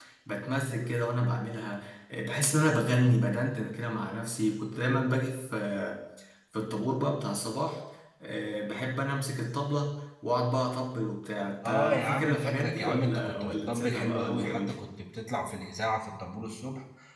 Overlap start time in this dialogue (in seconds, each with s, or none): 11.6 s